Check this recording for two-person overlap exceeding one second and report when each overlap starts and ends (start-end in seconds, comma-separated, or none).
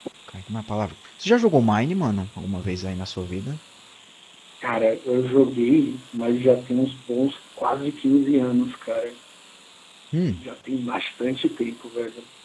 none